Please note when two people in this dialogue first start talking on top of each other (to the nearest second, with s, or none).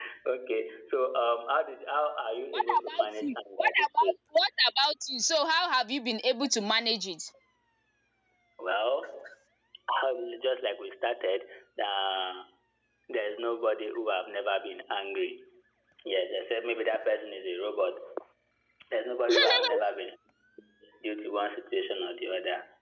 3 s